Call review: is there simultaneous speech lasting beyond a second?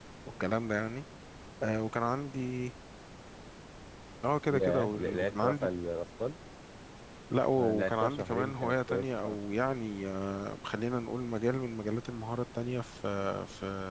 Yes, from 4.5 s

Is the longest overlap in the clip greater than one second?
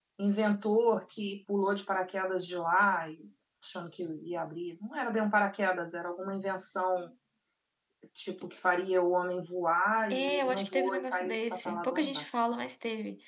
Yes, from 10.1 s

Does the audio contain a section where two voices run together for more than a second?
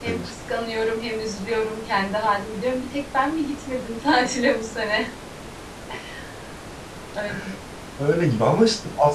No

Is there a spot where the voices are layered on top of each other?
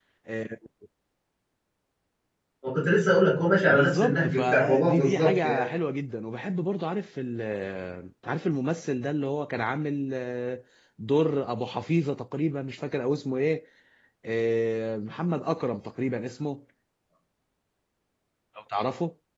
Yes, from 3.7 s

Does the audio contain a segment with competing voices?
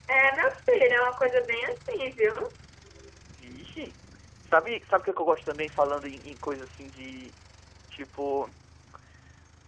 No

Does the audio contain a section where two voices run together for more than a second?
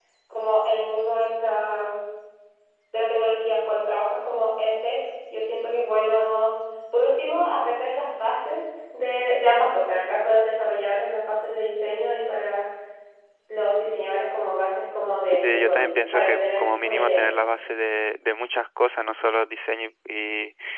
Yes, from 15.2 s

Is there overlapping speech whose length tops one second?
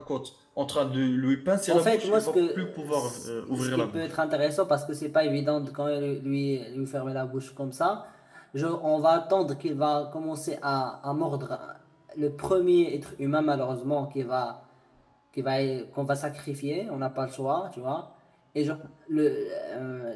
Yes, from 1.7 s

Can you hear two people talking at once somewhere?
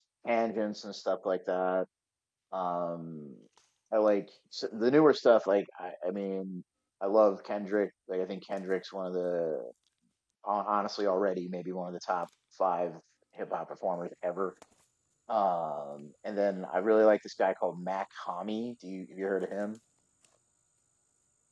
No

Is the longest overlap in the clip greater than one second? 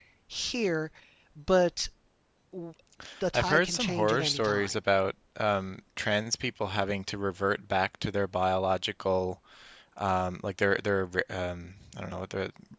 Yes, from 3.3 s

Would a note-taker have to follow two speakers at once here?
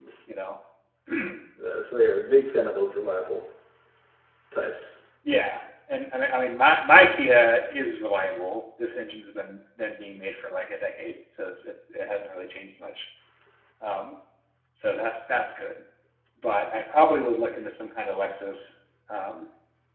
No

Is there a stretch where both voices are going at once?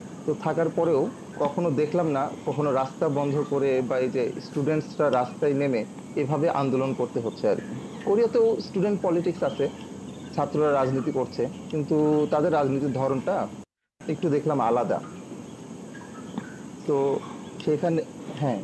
No

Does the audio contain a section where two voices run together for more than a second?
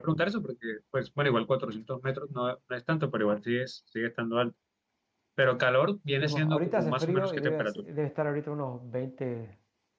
Yes, from 6.2 s

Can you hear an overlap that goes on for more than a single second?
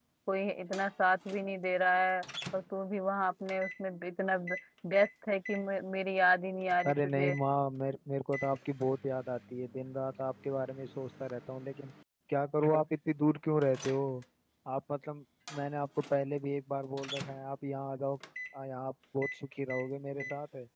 No

